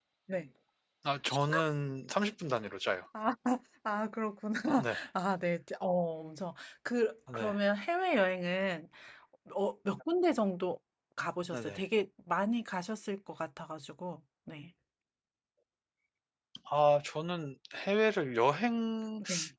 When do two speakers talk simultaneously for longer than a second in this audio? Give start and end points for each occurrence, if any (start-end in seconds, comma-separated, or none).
none